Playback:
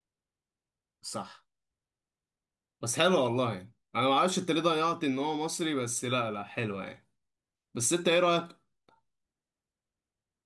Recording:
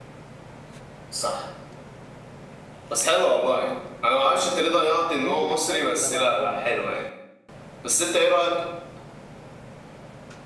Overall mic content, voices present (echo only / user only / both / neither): both